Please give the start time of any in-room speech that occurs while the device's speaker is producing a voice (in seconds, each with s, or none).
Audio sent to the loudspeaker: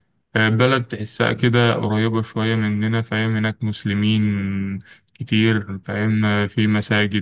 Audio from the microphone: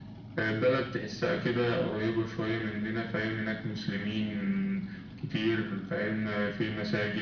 none